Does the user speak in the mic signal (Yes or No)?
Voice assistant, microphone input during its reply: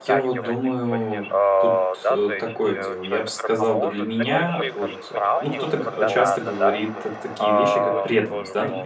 Yes